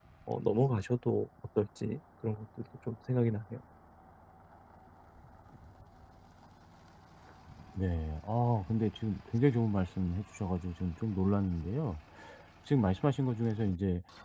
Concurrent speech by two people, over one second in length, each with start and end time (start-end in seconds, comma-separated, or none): none